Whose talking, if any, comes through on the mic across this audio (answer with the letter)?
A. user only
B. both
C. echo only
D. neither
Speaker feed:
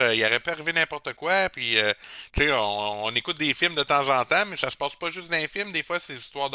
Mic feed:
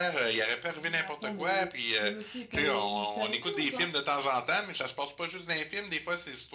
B